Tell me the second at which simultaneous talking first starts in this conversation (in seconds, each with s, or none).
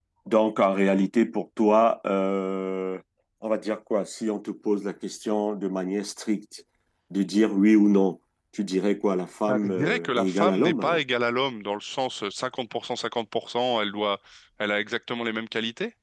9.5 s